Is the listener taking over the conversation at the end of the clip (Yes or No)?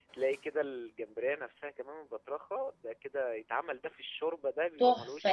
Yes